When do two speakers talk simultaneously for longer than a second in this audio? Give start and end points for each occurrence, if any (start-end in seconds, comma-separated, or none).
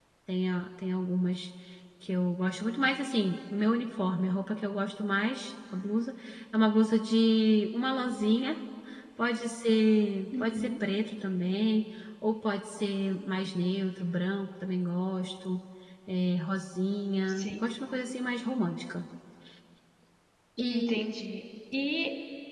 none